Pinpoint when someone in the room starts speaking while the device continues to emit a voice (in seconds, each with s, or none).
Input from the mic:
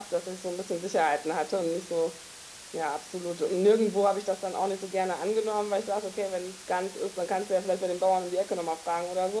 none